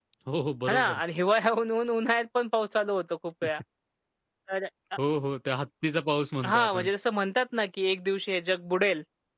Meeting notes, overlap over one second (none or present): none